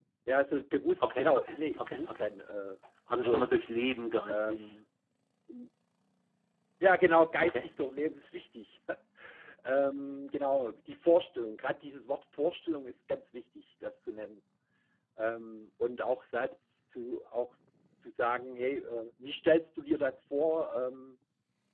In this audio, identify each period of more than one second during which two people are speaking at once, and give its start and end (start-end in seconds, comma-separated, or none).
1.0-2.3